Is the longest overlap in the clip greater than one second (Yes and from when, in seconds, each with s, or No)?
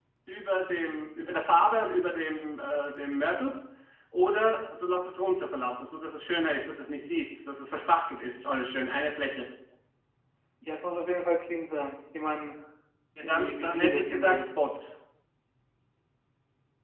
Yes, from 13.2 s